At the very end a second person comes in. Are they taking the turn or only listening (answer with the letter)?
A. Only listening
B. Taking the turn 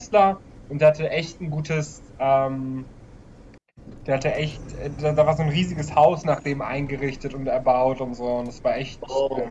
B